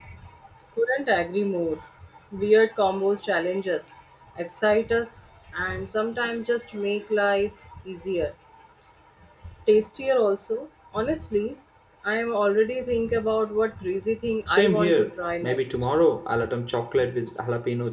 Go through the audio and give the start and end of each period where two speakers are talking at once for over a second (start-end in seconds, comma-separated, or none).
14.5-15.8